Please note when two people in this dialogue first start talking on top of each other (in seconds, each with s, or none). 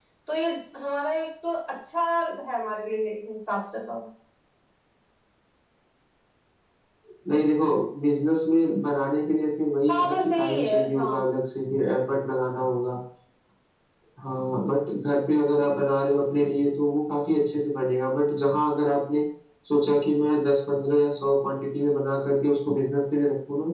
9.9 s